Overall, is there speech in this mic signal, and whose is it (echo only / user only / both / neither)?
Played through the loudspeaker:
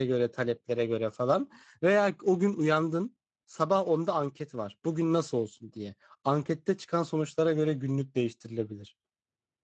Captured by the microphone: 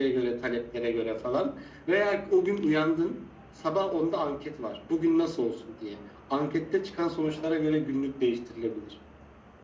echo only